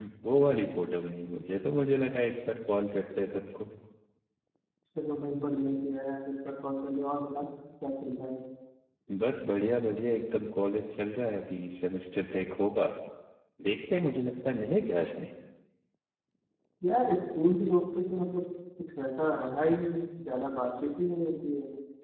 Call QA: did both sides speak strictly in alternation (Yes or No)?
Yes